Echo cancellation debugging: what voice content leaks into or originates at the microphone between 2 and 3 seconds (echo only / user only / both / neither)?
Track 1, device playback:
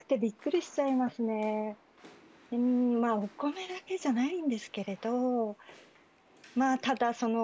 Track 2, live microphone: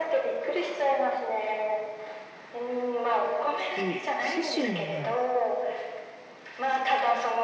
echo only